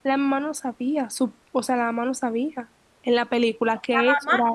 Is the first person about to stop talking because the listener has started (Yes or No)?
Yes